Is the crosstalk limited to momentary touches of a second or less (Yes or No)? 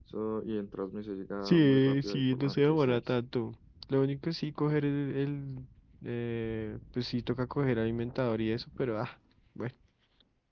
No